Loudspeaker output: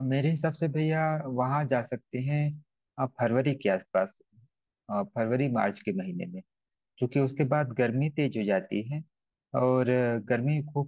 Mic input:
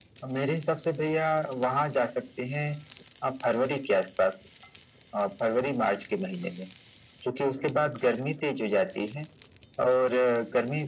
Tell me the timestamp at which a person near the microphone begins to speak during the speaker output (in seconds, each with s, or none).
none